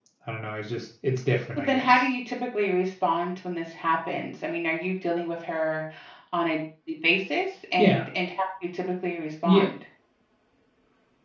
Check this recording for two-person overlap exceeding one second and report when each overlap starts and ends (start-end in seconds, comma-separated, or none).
none